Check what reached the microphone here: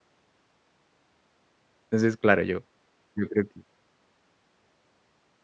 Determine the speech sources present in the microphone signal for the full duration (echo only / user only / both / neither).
user only